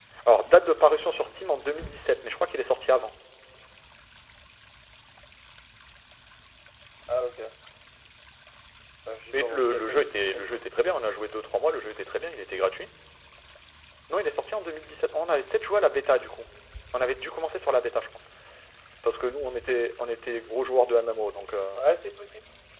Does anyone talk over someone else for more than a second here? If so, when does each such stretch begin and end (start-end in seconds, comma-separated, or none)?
9.3-10.6